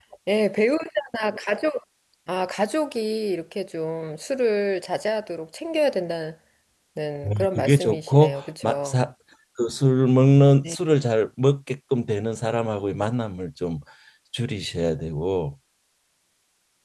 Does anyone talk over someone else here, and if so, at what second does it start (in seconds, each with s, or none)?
7.3 s